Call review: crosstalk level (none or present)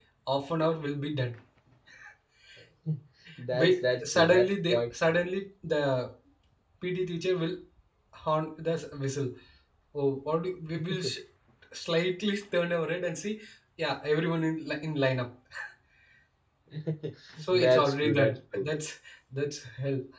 present